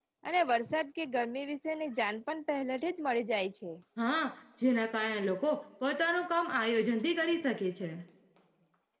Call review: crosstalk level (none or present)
none